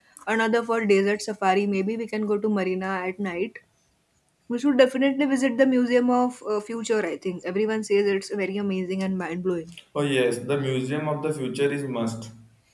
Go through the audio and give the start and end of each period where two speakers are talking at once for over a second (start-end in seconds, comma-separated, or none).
none